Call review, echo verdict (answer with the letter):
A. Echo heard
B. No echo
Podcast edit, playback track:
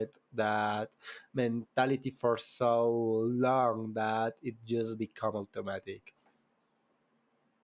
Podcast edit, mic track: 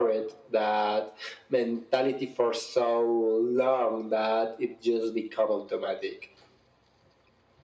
A